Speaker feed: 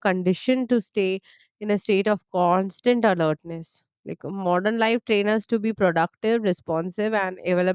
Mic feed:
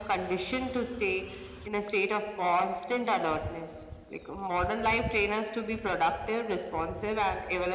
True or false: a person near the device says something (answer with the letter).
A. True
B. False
B